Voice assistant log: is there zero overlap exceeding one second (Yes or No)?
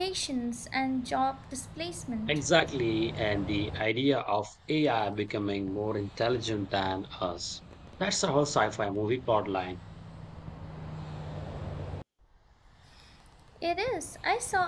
Yes